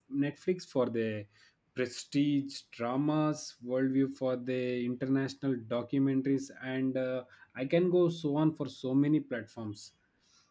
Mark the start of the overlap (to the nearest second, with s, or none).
none